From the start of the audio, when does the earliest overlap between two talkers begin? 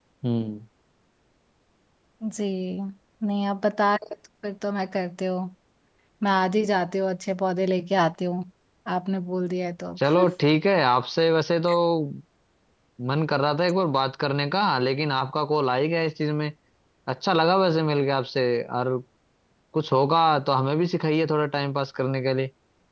none

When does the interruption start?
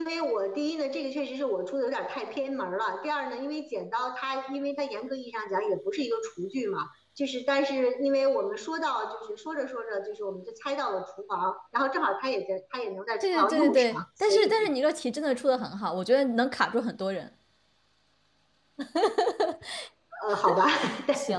13.2 s

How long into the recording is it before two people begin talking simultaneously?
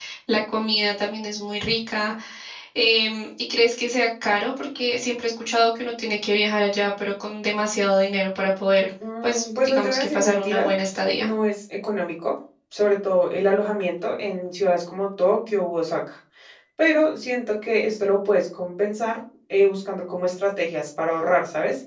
9.0 s

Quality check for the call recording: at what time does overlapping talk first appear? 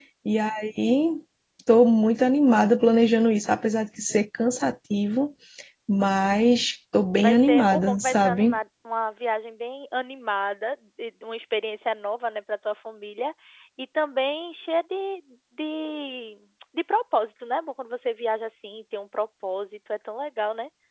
7.2 s

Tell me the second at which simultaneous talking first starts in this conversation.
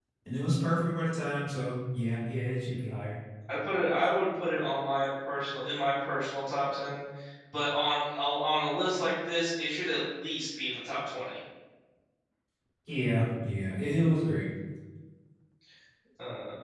none

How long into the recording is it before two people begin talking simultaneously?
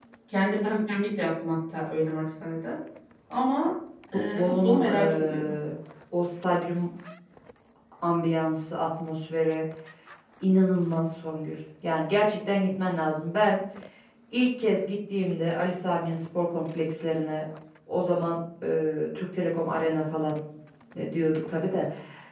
4.3 s

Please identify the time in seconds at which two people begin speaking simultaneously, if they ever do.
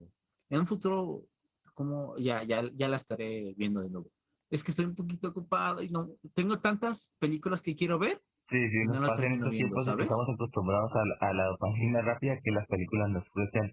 8.8 s

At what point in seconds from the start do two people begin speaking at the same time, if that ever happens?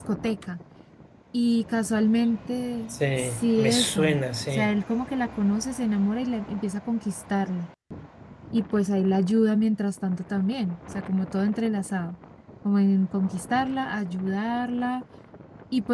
2.9 s

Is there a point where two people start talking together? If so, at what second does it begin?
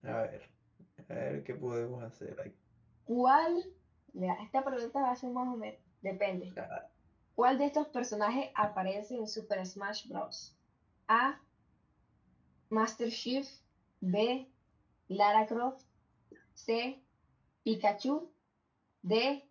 none

